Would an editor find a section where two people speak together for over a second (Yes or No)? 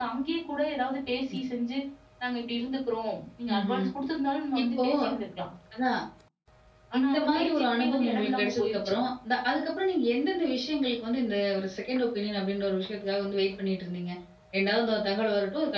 Yes